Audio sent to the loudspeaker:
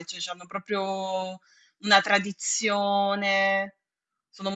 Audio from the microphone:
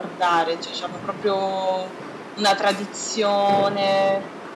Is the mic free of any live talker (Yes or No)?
Yes